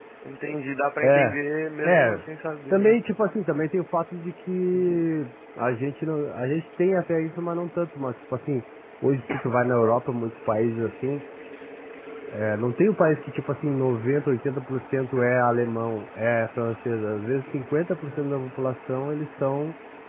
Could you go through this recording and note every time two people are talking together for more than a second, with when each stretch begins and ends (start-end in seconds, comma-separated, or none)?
none